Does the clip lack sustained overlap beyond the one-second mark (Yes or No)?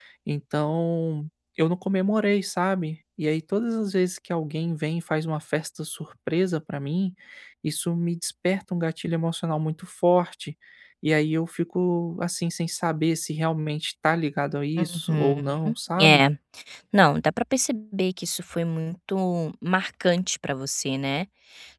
No